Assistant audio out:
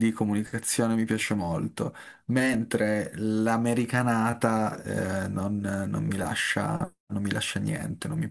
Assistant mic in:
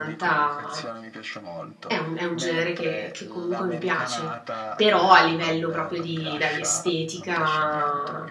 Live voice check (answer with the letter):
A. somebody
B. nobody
A